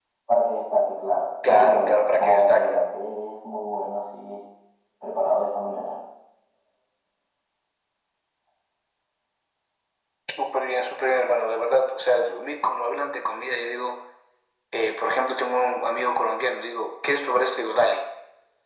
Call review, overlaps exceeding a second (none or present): present